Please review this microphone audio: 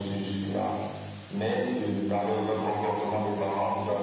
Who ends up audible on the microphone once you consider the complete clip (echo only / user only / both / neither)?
echo only